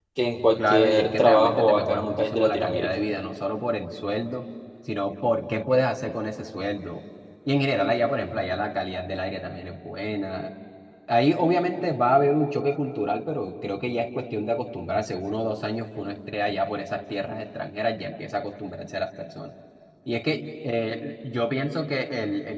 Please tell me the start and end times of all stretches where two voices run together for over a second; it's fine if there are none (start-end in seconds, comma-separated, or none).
0.6-2.9